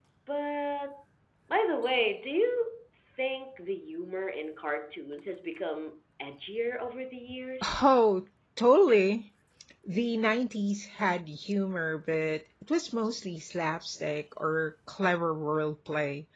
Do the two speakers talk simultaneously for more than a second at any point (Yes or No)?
No